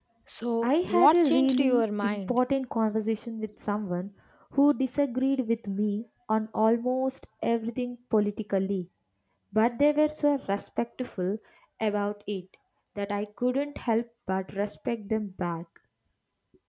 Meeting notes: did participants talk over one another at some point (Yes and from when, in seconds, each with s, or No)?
Yes, from 0.6 s